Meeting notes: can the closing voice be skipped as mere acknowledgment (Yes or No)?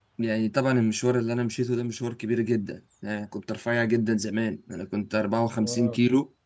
Yes